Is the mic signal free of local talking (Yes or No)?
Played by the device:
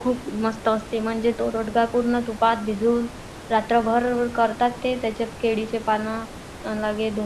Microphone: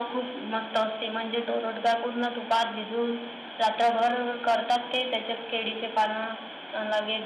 Yes